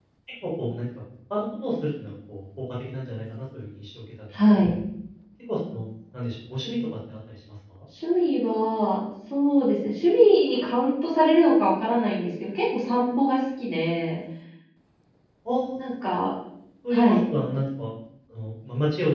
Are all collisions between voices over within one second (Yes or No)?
Yes